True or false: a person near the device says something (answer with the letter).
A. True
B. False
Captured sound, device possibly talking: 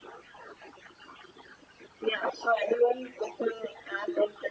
B